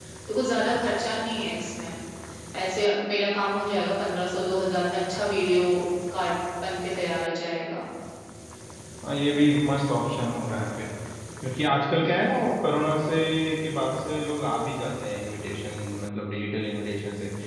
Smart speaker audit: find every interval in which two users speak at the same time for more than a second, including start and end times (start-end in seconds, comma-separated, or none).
none